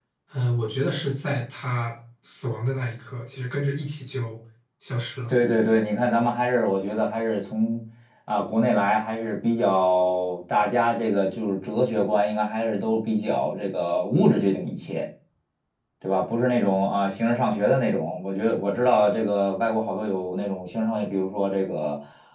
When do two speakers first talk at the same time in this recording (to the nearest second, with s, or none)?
none